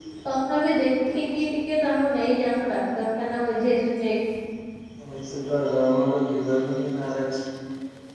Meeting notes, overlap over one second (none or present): none